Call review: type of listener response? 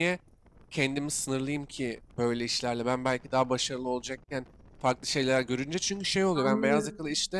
listening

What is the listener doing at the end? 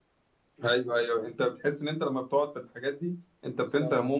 taking over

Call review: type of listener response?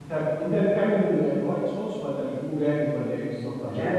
listening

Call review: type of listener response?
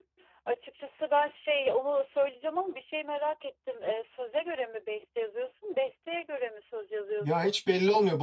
taking over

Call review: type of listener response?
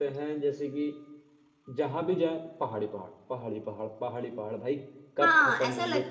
taking over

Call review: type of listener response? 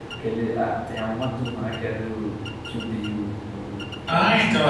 taking over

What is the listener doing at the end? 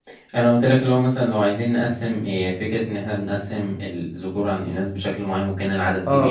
taking over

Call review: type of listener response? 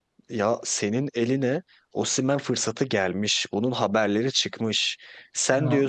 listening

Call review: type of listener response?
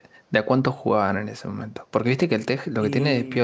listening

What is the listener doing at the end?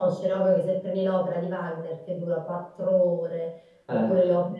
listening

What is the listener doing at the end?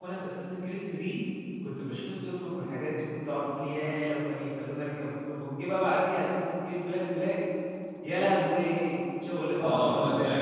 taking over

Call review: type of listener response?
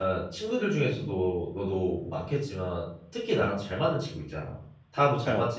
listening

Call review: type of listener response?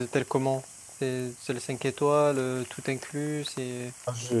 taking over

